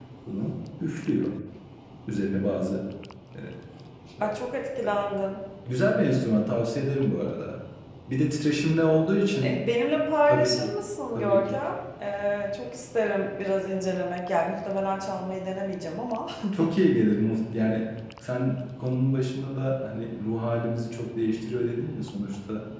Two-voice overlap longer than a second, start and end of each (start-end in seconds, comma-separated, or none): none